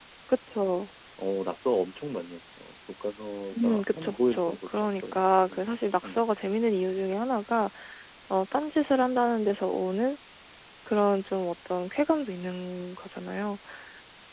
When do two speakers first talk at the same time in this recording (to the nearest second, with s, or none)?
4 s